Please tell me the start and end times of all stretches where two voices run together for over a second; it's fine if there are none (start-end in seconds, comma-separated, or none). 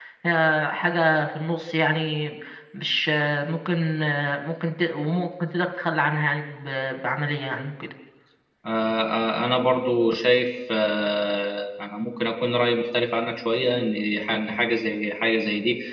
none